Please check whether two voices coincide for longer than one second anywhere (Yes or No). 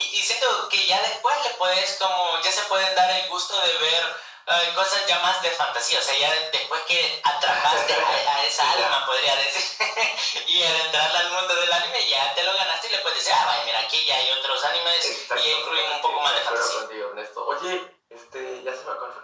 Yes